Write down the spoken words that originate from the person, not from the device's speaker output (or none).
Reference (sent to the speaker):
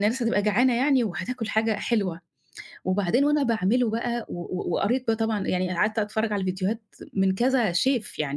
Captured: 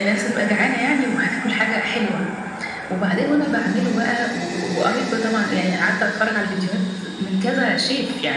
none